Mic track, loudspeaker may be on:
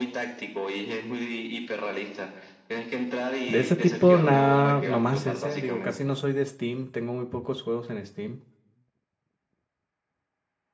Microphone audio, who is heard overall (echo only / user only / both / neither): both